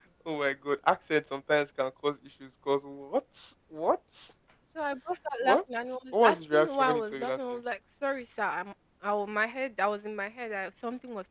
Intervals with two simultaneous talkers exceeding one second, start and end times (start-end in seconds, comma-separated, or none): 6.1-7.4